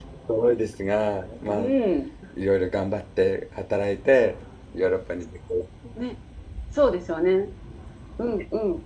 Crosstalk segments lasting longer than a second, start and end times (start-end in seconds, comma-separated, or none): none